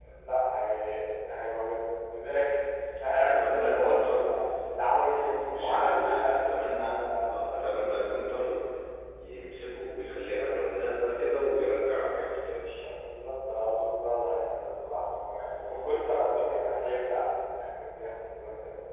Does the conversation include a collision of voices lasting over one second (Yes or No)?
Yes